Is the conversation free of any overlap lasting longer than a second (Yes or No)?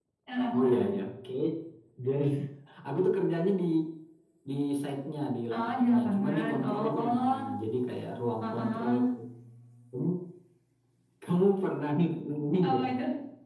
No